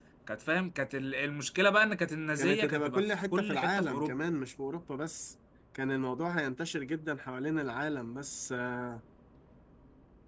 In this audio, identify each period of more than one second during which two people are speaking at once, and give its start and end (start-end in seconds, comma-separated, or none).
2.4-4.2